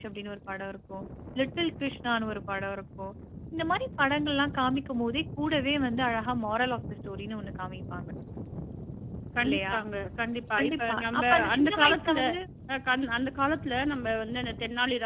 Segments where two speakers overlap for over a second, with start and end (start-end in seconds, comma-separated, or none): 10.6-12.2